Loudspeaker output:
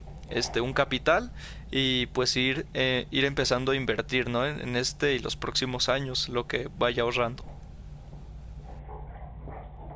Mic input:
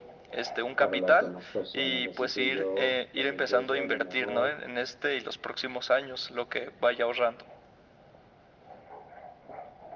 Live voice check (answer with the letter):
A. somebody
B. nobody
A